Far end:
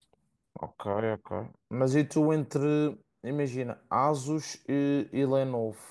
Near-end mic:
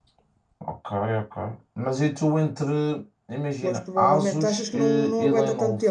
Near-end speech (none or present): present